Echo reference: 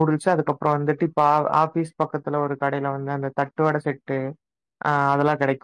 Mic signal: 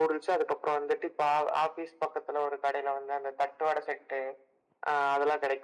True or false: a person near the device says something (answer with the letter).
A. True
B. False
B